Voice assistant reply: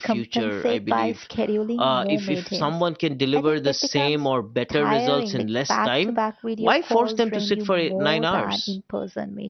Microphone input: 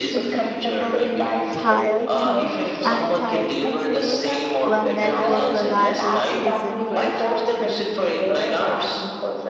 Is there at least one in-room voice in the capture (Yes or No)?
Yes